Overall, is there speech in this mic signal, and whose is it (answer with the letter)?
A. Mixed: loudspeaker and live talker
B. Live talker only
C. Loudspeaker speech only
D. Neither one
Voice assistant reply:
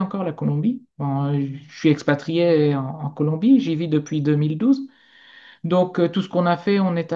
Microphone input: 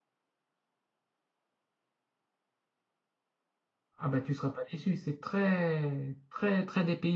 B